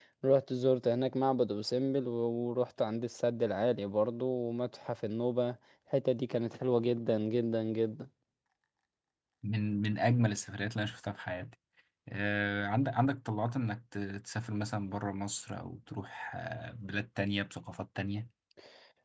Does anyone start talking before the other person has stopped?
No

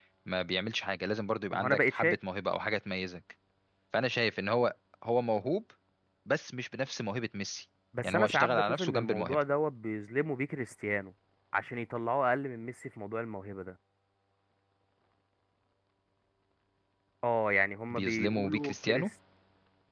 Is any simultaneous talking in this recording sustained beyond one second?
Yes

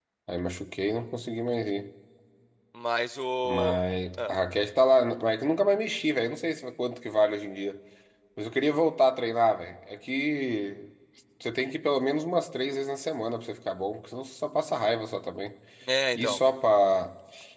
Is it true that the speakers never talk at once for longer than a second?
Yes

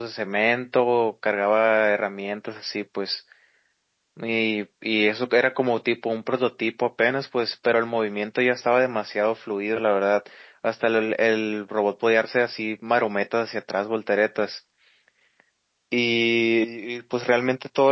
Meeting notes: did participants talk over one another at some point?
No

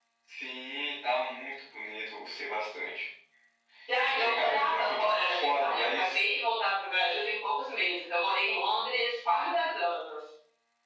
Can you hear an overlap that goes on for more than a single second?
Yes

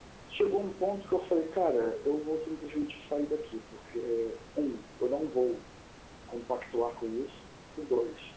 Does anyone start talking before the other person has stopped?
No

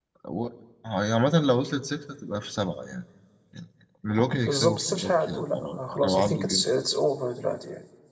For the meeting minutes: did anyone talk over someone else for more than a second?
Yes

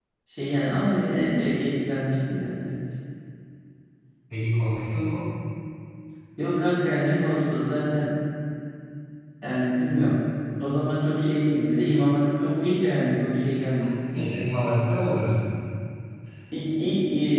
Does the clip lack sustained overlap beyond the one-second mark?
Yes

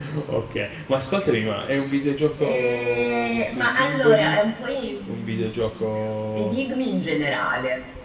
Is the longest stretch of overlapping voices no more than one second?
No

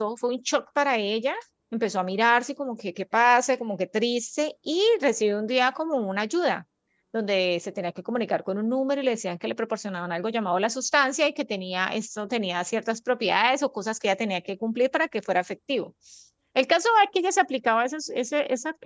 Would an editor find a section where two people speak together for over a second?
No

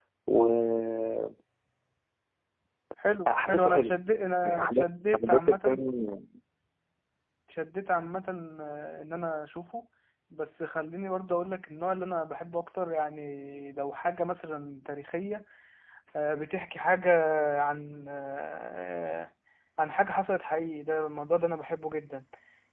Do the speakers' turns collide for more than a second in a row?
Yes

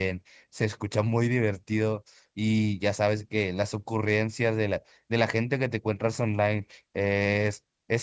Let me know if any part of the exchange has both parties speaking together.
No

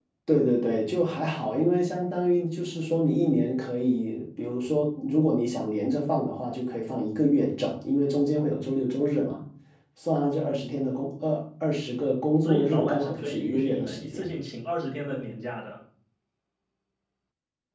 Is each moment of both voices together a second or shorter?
No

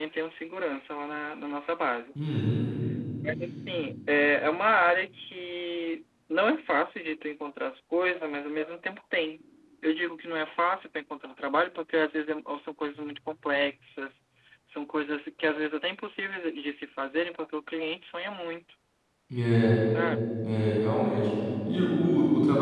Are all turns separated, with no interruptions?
Yes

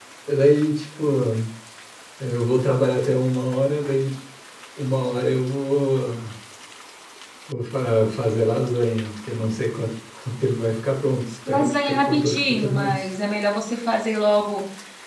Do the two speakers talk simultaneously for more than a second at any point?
Yes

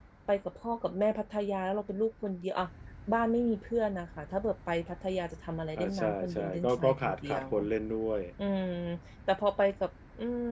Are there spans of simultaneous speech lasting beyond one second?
Yes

